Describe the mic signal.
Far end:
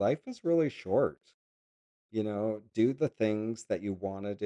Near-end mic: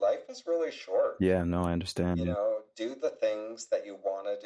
both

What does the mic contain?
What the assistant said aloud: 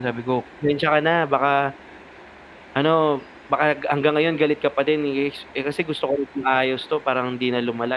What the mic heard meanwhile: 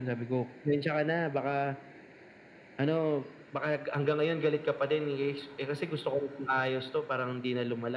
echo only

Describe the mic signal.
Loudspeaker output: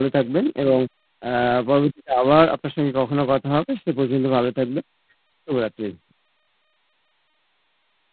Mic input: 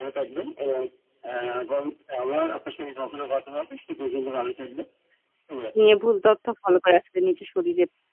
both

